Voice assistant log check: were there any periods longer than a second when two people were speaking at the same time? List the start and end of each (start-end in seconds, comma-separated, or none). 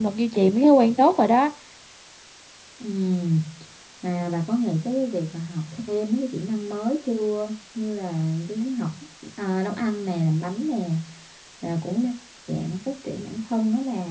none